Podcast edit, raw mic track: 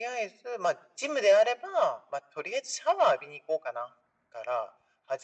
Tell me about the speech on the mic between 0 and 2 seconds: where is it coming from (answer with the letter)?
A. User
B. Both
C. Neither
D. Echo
D